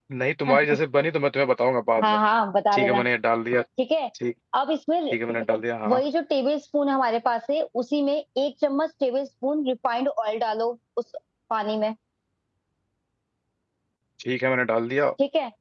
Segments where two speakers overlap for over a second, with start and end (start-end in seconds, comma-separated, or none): none